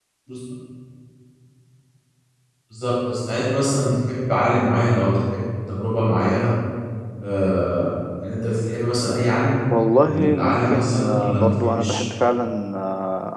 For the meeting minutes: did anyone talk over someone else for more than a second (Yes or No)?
Yes